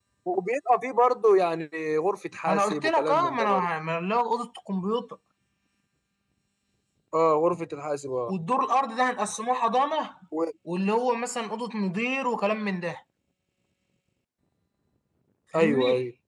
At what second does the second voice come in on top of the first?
2.5 s

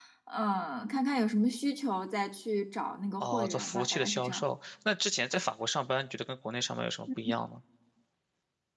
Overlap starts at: 3.2 s

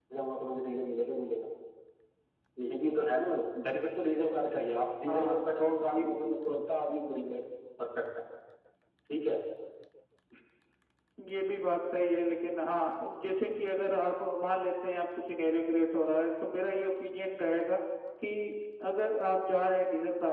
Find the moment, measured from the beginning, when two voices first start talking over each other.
5.0 s

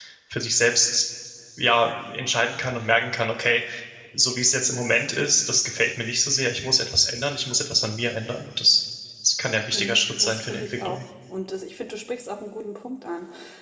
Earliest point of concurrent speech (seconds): 9.7 s

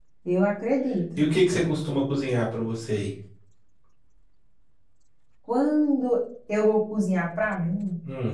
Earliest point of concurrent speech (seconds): none

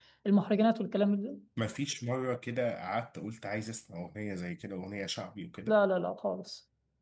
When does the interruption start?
none

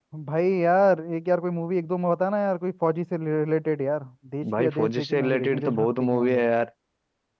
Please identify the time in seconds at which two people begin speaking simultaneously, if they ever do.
4.4 s

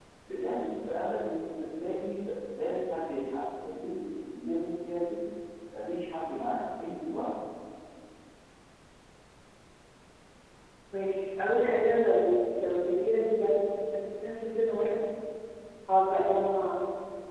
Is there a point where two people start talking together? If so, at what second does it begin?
none

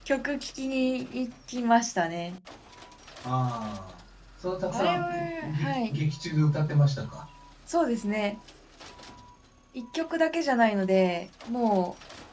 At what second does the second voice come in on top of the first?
4.7 s

